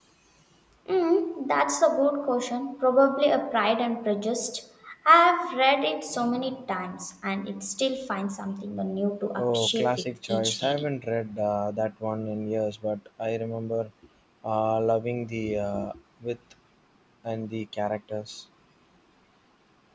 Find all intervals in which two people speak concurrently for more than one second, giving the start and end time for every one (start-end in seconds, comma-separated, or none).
9.3-10.9